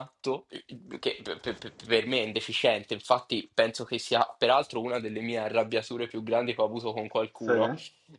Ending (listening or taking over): listening